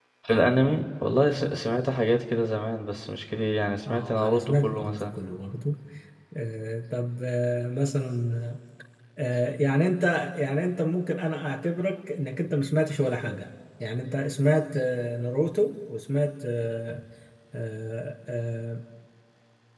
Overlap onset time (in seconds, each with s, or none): 3.8 s